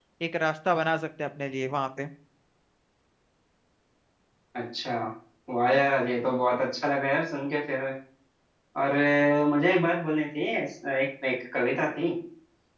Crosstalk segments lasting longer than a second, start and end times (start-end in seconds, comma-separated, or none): none